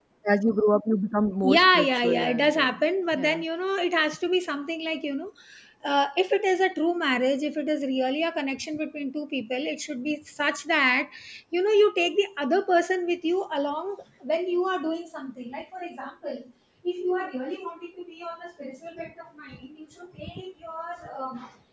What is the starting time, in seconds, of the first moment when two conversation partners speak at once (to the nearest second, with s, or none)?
1 s